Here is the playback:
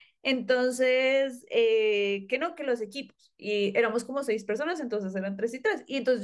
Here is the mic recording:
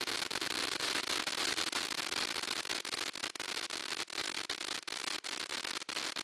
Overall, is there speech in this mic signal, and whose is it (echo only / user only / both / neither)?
neither